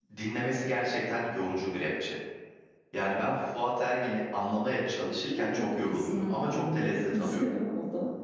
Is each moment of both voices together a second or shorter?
No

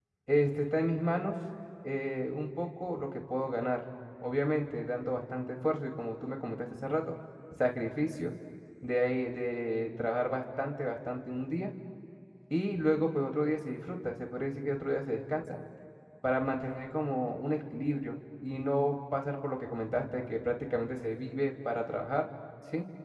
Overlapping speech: No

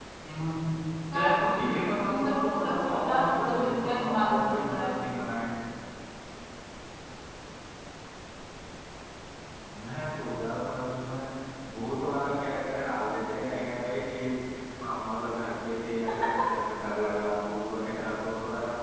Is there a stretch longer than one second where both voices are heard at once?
Yes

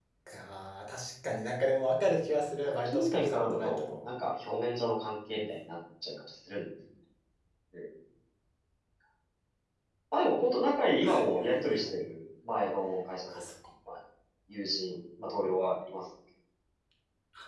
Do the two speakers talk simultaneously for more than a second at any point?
Yes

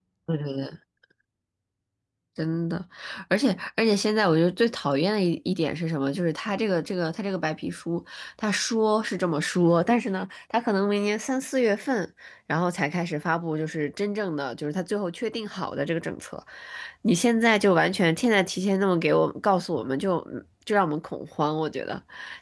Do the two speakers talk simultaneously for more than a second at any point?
No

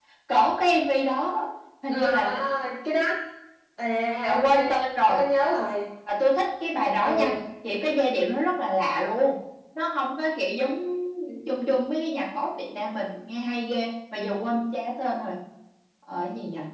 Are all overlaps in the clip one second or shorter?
Yes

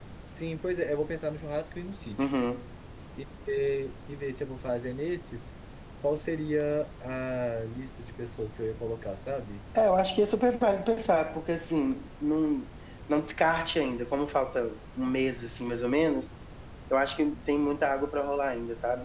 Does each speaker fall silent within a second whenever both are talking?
Yes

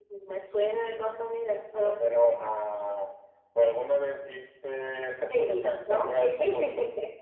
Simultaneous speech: Yes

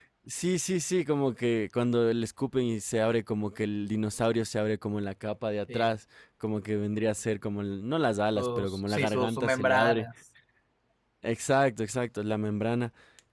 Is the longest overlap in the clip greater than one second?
Yes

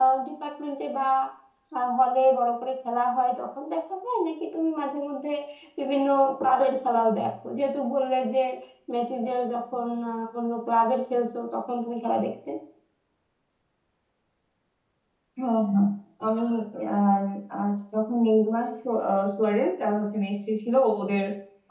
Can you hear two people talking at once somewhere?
No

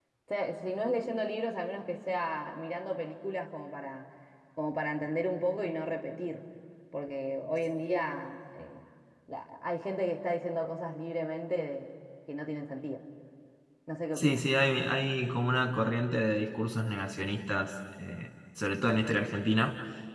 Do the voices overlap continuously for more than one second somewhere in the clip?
No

